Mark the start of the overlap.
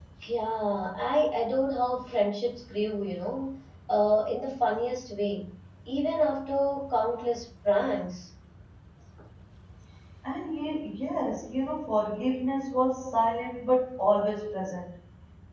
none

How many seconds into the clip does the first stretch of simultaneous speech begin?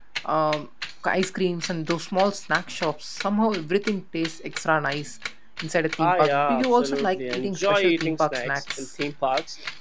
6 s

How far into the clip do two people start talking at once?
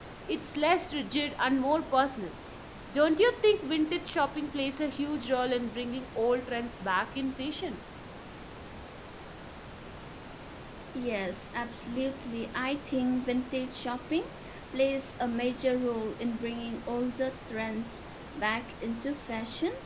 none

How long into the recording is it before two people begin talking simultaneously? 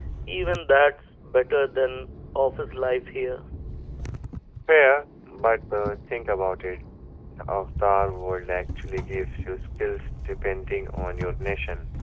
none

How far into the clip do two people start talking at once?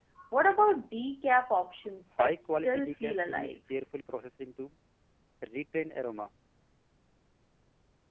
2 s

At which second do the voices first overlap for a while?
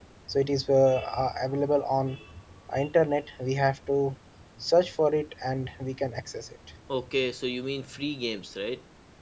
none

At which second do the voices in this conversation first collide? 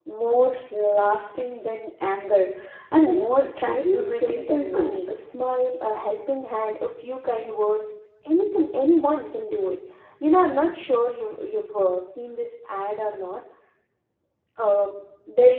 3 s

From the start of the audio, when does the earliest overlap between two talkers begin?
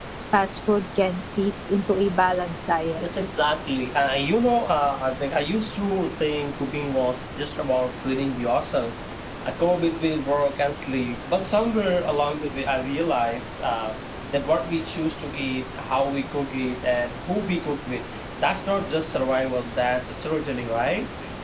none

